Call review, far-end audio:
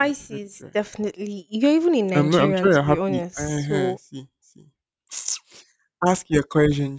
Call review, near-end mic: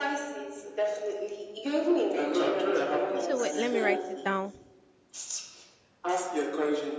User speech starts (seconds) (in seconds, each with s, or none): 3.2 s